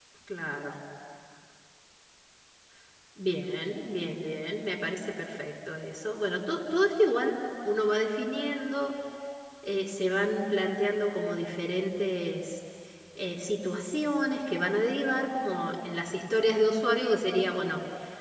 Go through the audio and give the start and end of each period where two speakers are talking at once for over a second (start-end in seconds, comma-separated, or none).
none